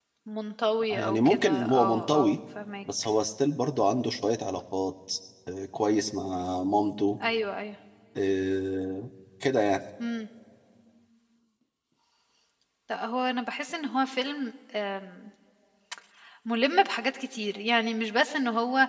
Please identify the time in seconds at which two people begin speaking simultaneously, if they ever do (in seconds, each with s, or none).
0.9 s